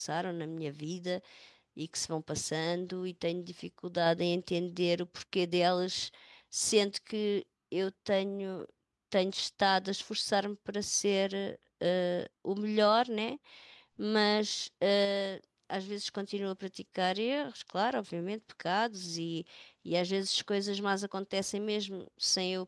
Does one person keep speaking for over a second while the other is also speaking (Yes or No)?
No